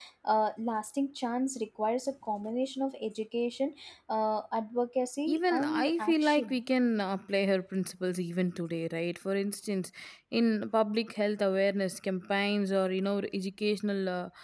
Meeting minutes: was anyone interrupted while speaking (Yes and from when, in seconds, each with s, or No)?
Yes, from 5.3 s